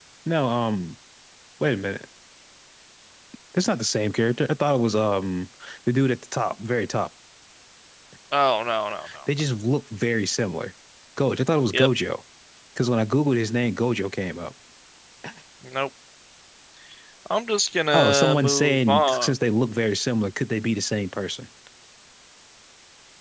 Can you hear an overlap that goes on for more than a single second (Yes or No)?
Yes